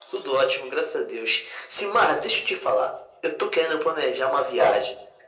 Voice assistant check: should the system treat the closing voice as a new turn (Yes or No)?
No